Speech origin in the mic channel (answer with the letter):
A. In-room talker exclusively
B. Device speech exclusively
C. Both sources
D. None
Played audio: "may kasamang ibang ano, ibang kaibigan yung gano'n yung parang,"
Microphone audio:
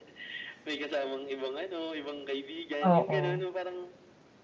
C